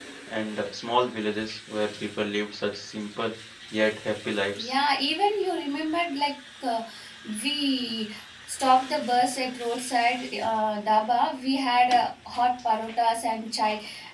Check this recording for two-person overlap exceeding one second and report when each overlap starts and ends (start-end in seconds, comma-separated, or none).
none